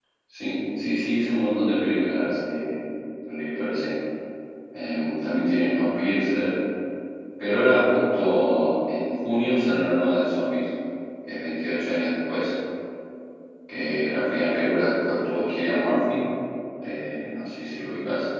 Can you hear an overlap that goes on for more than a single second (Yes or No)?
No